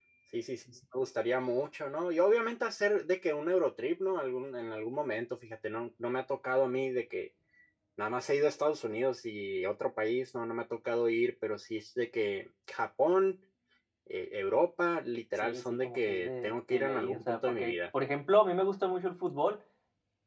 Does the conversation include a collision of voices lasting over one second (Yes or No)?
Yes